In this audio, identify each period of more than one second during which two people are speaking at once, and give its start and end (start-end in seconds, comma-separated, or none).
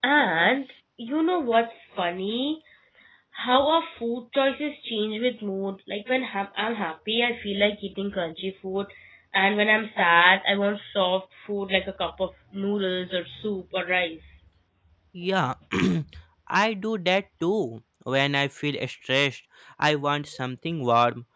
none